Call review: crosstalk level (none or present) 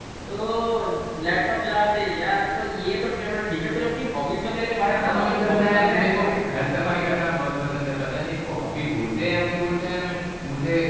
present